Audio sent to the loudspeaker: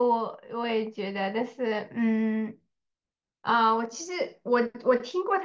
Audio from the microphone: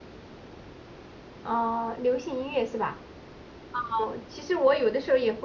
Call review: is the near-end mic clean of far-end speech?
Yes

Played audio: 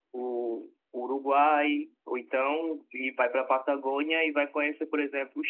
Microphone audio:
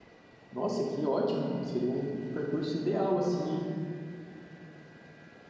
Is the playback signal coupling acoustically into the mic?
No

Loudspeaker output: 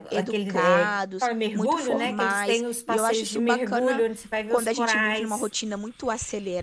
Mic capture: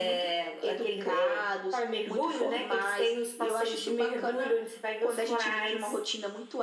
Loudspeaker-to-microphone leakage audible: Yes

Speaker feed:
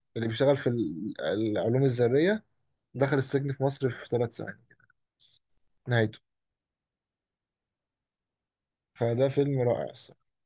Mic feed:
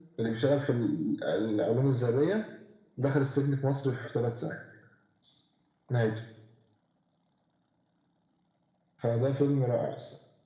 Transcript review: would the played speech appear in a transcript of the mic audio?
Yes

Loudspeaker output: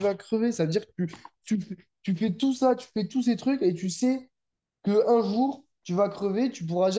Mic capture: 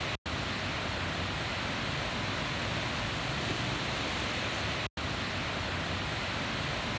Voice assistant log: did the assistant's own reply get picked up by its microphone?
No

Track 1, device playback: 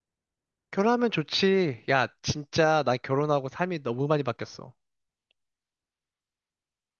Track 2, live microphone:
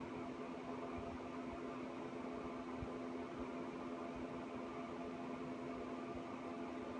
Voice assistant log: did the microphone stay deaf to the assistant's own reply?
Yes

